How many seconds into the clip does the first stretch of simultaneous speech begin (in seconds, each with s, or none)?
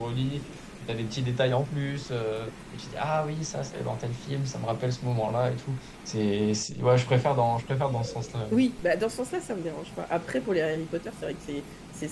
none